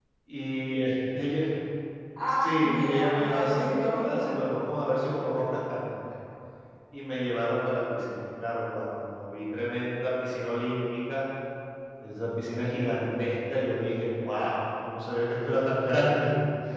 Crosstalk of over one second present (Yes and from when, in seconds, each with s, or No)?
Yes, from 2.4 s